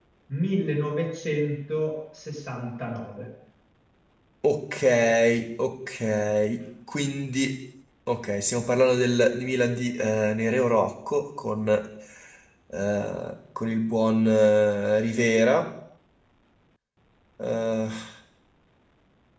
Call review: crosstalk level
none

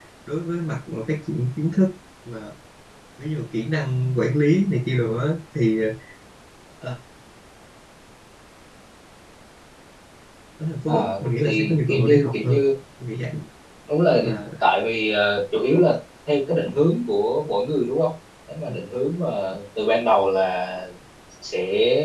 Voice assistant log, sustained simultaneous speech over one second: present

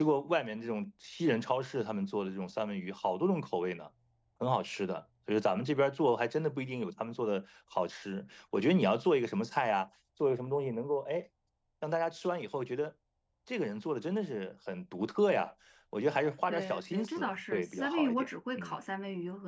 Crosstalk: present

